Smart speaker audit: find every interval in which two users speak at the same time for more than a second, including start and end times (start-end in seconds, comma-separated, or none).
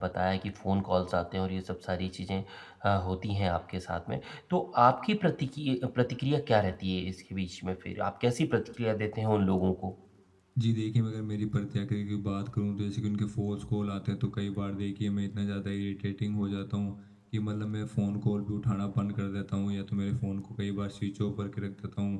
none